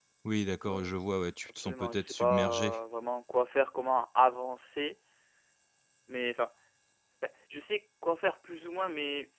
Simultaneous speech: Yes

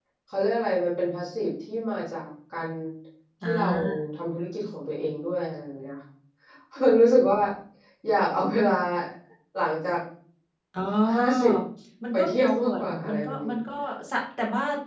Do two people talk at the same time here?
Yes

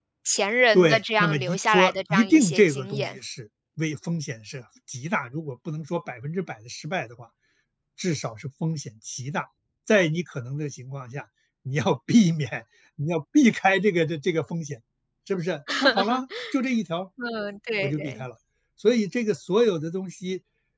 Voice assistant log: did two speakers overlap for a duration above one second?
Yes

